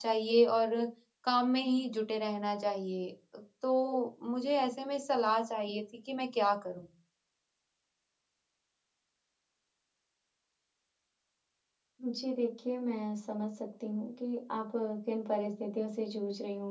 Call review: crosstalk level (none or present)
none